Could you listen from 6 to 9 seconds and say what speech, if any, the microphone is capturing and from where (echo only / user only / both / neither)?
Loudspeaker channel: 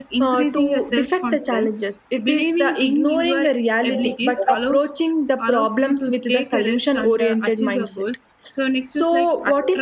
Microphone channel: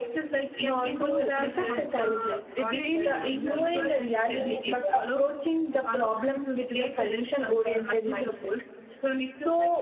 echo only